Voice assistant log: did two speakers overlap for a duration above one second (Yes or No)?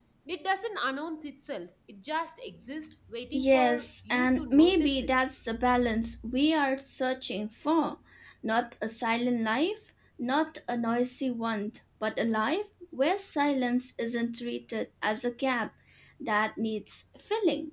Yes